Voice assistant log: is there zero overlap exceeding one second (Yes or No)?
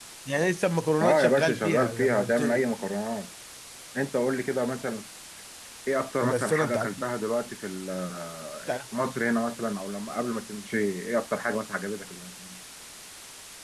No